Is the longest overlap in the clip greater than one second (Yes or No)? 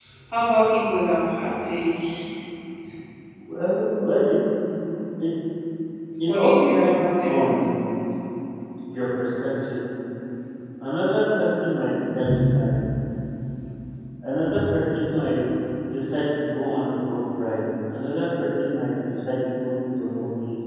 Yes